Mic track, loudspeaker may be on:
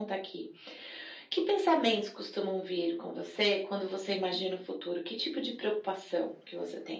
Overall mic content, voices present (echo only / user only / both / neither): echo only